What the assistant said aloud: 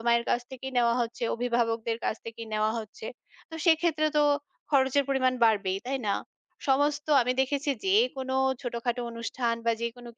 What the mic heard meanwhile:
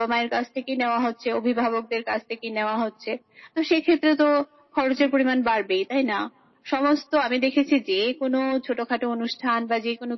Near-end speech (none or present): none